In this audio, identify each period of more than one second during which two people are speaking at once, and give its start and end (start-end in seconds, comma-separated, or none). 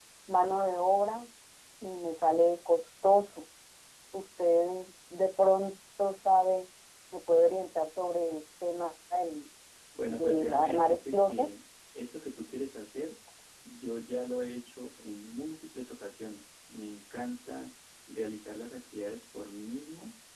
10.1-11.5